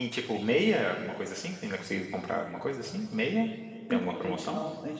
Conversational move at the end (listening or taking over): taking over